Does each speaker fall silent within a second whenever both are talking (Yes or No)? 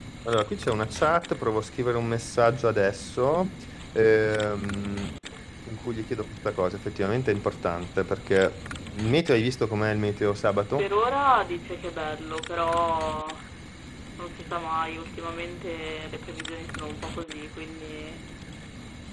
Yes